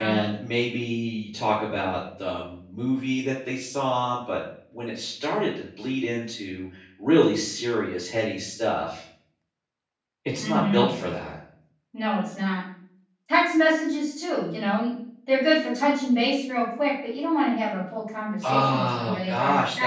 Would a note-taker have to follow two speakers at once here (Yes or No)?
Yes